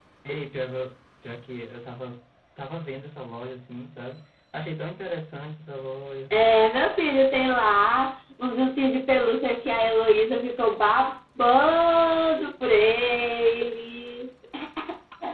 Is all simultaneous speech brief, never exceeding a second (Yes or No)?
Yes